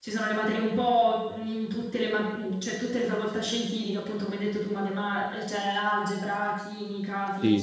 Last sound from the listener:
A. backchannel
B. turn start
B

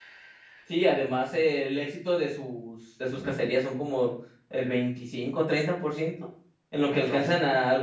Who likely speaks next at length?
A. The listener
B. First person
B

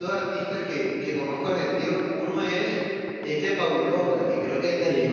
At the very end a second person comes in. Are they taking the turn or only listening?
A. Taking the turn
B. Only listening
B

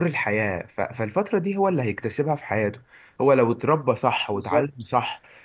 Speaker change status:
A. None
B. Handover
A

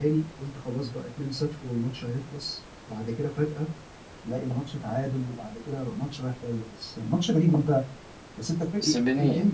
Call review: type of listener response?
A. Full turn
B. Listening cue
A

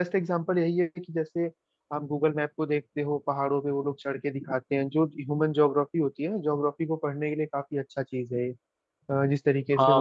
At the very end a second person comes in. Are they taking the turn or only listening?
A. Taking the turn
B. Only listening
A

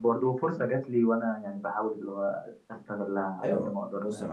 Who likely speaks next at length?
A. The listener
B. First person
A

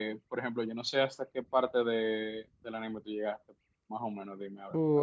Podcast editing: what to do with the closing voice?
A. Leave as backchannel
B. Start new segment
B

